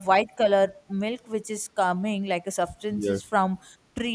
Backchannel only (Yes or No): Yes